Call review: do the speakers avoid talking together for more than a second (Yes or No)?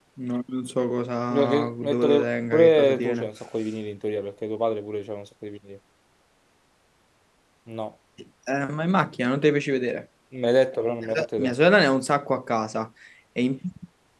No